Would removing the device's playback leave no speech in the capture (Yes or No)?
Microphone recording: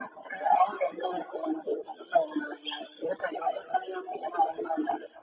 Yes